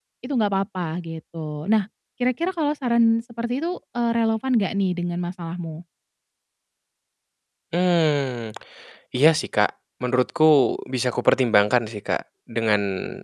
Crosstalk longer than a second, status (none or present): none